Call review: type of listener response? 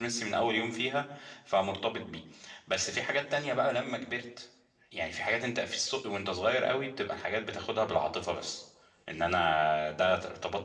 listening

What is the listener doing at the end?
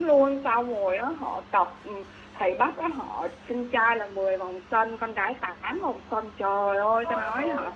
listening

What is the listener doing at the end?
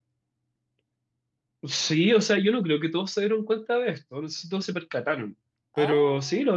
listening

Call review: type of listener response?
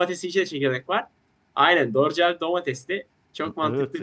taking over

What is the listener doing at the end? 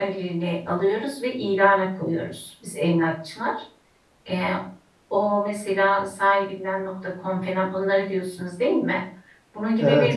listening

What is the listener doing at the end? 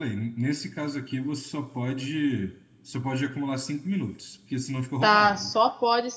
taking over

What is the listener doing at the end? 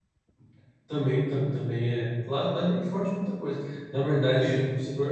listening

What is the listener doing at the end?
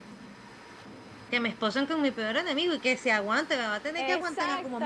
taking over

